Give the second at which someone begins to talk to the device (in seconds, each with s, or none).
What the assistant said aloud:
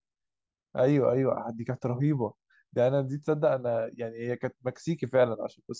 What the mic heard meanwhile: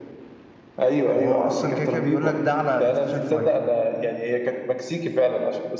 1.1 s